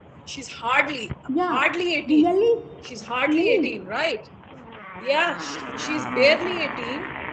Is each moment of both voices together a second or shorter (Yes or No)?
Yes